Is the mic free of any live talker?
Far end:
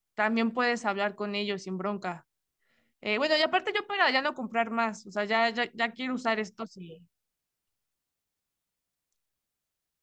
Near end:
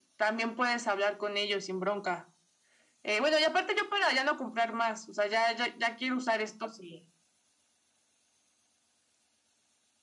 Yes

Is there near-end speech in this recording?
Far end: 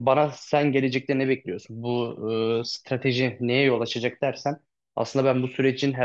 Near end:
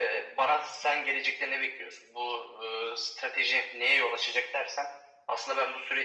No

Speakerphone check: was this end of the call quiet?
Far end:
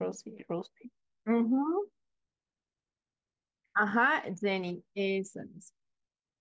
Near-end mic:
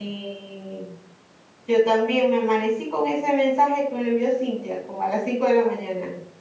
No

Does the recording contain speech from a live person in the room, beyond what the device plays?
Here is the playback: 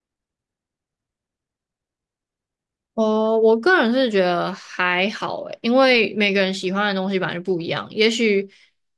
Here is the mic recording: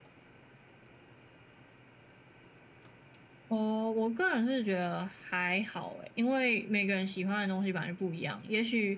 No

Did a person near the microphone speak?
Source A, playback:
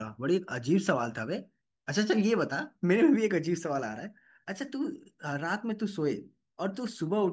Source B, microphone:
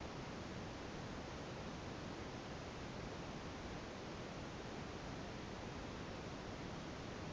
No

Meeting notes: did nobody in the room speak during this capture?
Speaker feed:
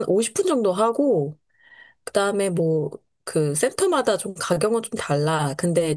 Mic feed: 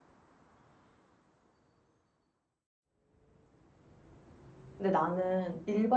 No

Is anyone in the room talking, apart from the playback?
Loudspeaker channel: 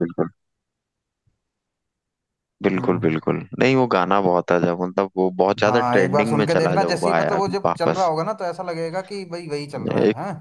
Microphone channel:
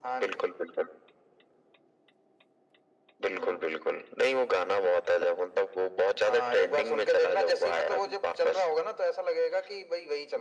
No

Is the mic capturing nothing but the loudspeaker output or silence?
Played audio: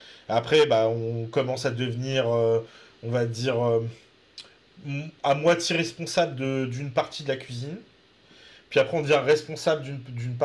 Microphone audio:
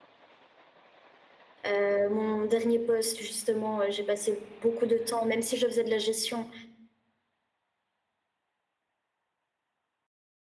No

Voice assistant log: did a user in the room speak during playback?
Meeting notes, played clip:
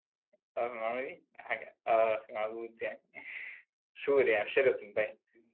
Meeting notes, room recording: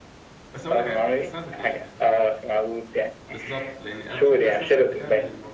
Yes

